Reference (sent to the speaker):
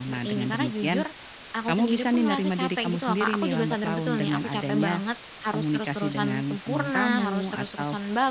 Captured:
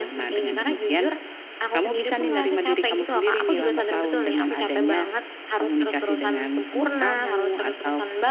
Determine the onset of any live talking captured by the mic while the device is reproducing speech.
none

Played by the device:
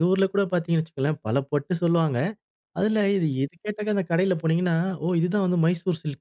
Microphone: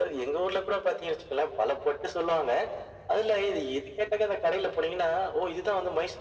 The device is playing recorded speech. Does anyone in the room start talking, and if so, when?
none

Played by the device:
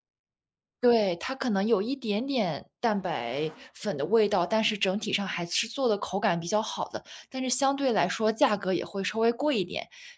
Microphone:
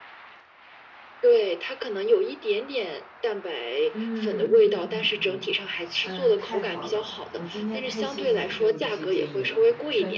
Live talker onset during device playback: 3.9 s

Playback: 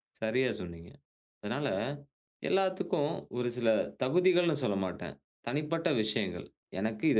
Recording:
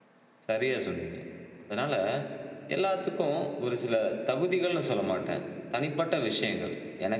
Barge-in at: none

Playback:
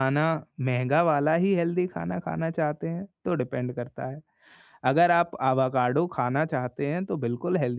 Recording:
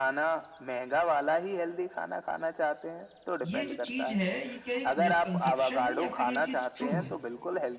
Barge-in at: 3.4 s

